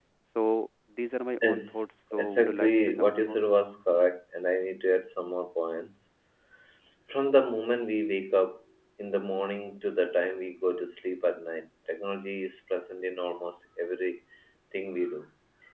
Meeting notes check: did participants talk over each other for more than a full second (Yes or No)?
Yes